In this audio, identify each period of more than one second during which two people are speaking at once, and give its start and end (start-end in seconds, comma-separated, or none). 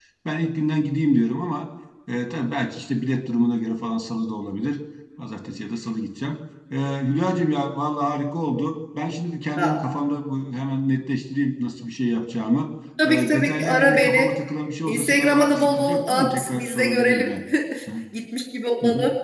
13.0-14.3, 14.9-17.3